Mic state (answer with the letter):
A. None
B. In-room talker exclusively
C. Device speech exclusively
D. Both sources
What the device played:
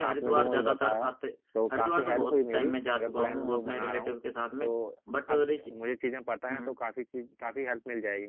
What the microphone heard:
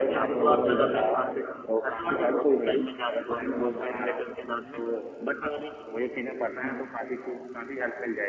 C